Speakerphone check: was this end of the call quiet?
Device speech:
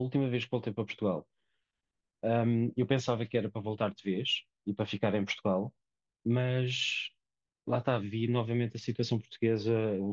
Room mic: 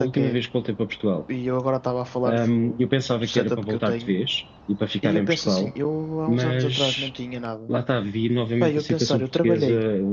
No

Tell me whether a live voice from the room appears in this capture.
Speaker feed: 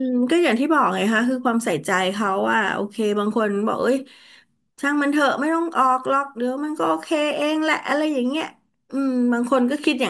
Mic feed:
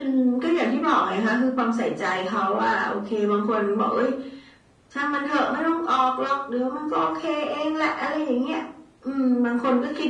No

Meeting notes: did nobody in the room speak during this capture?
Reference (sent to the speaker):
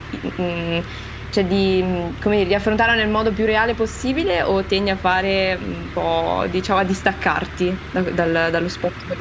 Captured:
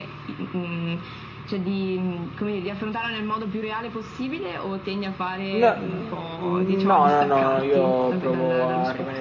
No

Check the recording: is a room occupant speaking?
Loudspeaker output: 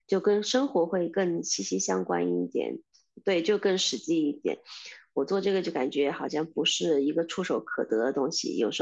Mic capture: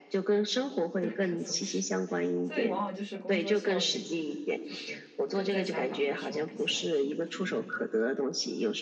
Yes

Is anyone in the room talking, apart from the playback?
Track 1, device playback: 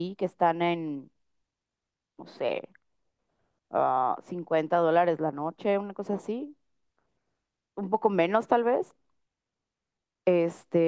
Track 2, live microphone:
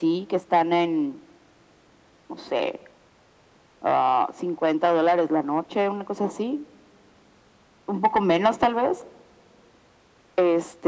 No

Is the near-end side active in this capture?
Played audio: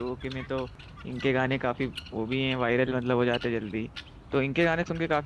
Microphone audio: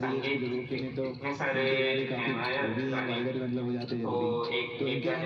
Yes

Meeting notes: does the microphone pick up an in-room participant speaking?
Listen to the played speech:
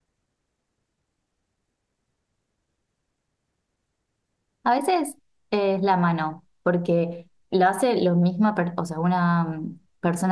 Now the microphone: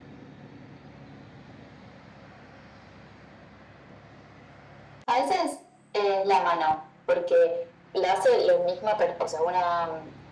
No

